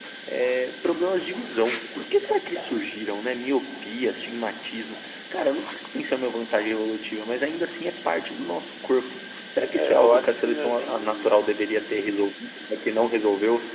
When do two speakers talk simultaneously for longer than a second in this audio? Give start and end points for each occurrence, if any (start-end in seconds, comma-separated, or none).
9.7-11.3